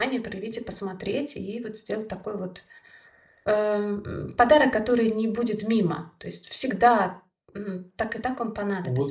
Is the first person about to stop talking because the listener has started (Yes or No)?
Yes